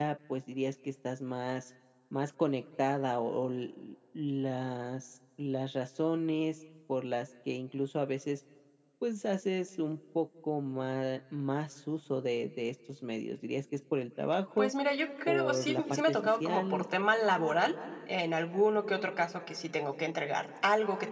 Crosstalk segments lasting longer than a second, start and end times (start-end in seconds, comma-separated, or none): 15.3-16.8